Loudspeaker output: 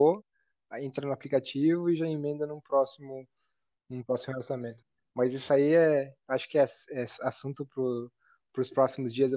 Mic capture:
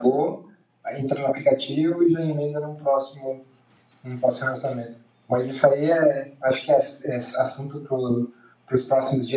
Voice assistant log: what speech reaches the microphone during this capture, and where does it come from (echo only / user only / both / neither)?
echo only